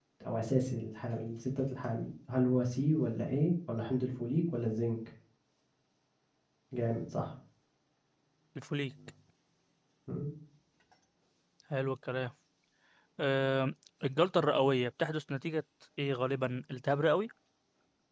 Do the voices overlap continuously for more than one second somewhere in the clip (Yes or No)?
No